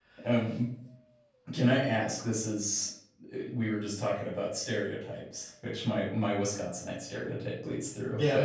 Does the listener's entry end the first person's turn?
No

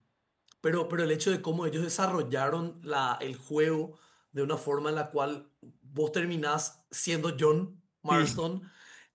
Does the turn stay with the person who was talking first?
Yes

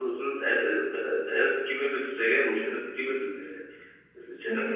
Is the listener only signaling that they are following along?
Yes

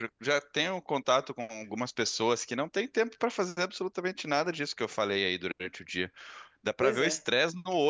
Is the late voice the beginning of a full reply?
No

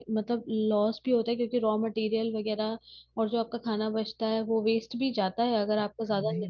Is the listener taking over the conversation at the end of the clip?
Yes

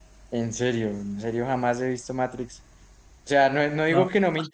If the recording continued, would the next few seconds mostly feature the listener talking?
No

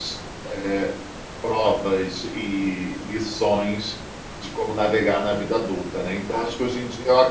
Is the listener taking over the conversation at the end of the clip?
No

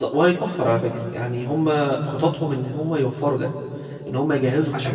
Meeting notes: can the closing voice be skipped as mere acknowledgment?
No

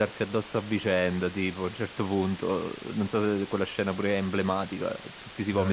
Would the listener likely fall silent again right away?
Yes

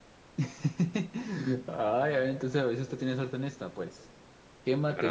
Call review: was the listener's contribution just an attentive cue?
Yes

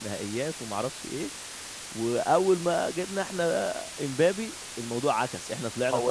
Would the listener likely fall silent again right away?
No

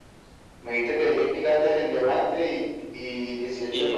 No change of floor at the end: No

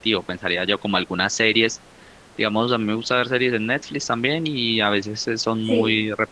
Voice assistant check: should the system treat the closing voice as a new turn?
No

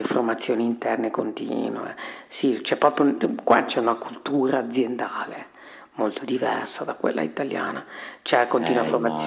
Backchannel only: Yes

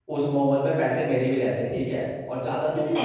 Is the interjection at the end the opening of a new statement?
No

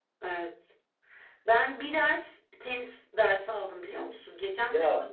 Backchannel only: Yes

